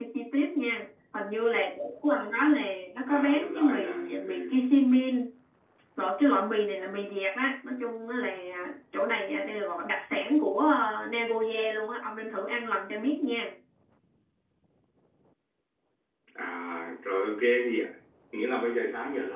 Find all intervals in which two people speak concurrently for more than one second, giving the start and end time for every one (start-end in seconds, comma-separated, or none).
3.1-4.5